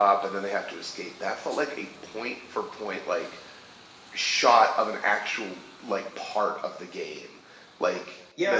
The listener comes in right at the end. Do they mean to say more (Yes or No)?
Yes